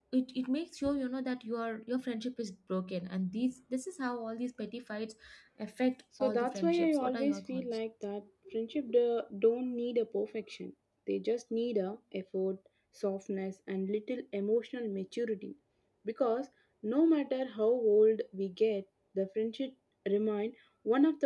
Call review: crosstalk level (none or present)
present